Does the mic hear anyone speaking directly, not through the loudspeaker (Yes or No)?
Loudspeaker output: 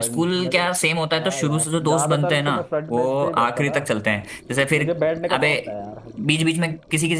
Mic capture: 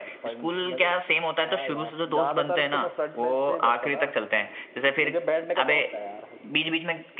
No